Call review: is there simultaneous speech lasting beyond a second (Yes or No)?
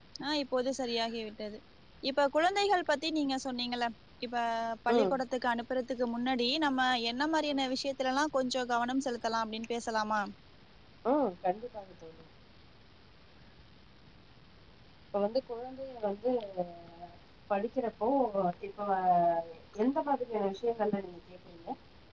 No